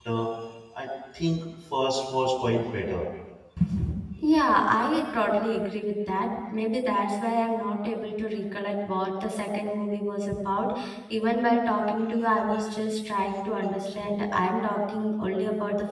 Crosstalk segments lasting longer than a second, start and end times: none

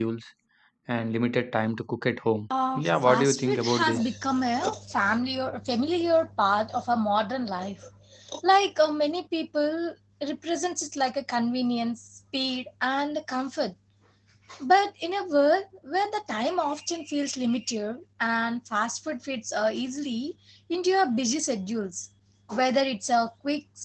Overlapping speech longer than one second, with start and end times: 2.8-4.1

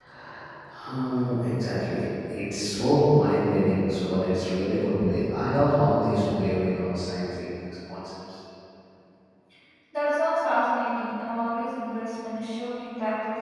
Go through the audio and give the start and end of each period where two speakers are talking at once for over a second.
none

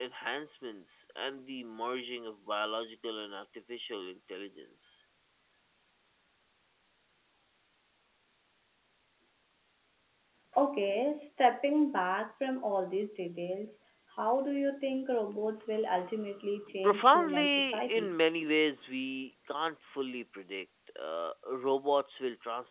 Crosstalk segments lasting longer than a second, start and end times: 16.8-18.1

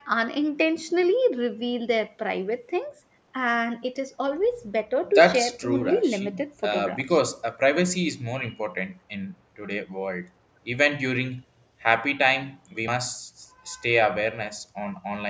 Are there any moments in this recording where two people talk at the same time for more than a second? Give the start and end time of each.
5.1-7.0

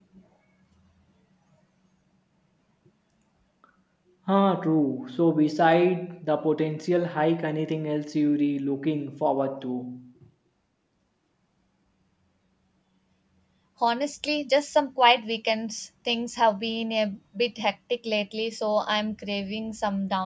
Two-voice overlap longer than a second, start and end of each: none

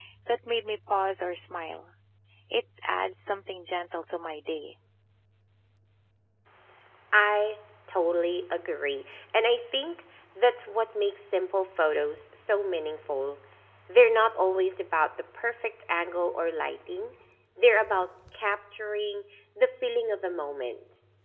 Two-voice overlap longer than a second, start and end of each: none

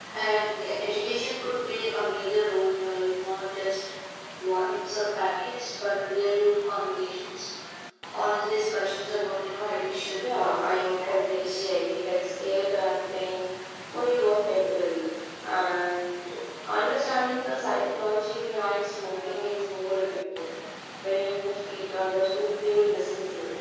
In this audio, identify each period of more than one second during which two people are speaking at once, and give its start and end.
10.1-11.7

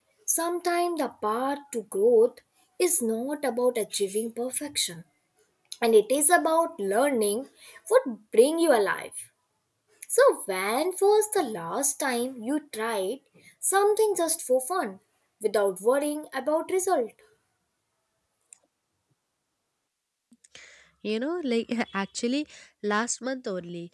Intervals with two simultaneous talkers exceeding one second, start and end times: none

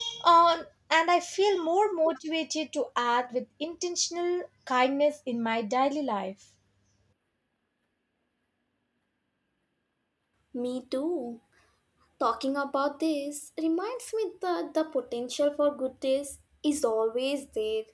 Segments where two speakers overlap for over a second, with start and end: none

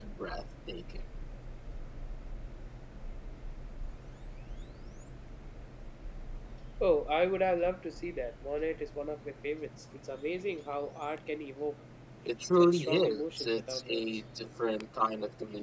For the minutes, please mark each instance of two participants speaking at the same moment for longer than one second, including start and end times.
12.6-14.1

